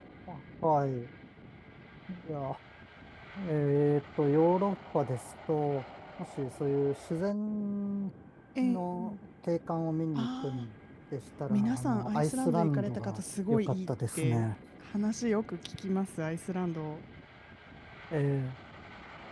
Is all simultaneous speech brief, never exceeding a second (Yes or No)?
No